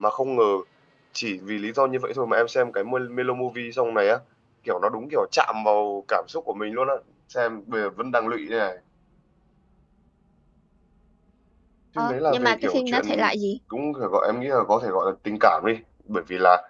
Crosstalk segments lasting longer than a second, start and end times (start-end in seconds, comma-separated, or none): 12.0-13.3